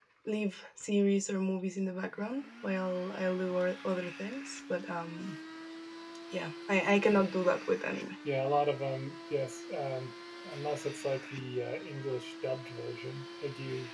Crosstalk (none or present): none